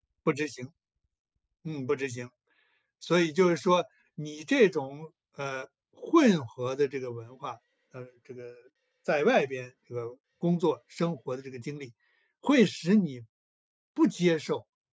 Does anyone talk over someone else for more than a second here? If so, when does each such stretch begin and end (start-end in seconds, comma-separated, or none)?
none